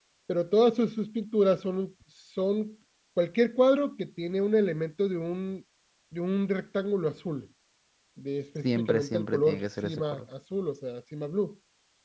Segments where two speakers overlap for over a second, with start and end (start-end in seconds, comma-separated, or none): 8.6-10.2